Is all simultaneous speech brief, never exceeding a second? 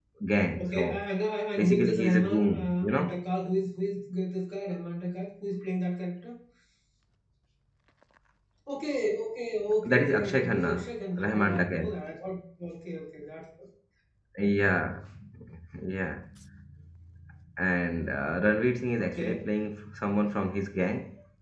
No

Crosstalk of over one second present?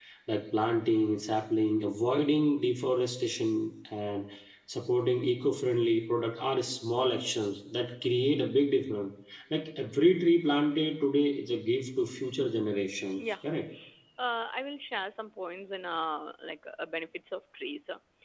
No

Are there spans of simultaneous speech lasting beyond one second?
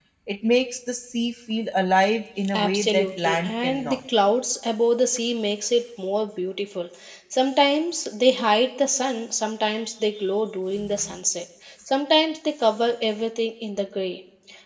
Yes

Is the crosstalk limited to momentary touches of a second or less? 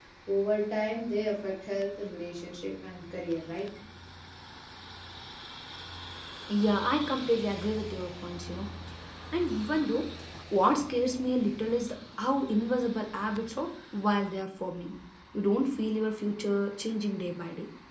Yes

